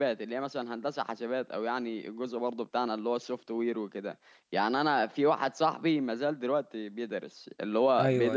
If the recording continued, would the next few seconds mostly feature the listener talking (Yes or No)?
No